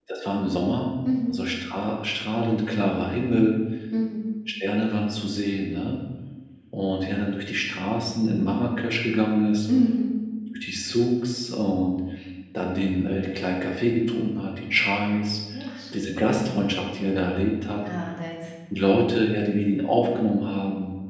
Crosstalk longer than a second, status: none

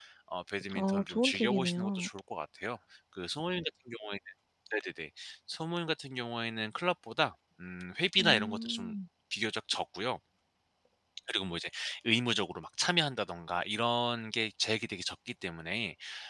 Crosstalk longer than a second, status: present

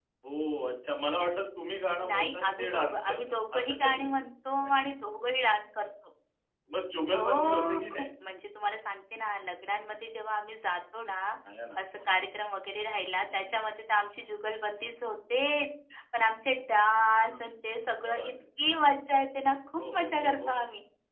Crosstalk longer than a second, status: present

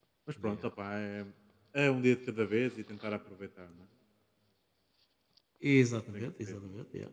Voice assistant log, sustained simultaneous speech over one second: none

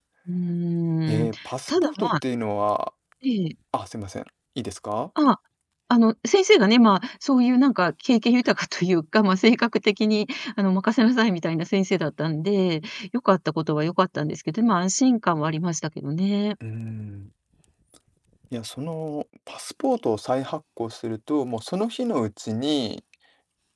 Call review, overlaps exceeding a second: none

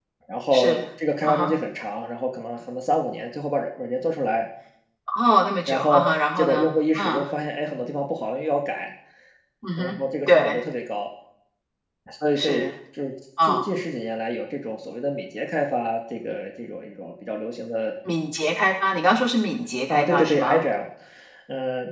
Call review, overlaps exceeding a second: present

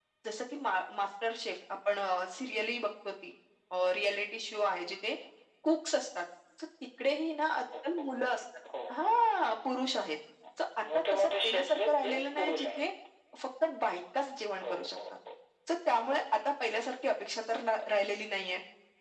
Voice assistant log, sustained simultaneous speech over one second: present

